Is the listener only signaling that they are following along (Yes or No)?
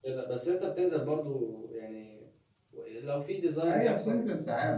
No